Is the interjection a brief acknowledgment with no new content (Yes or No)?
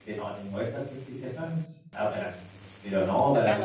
No